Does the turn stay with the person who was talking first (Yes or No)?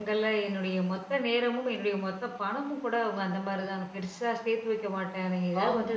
Yes